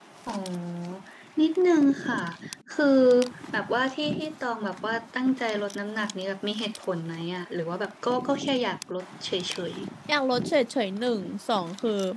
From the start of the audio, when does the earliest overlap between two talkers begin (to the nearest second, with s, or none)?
none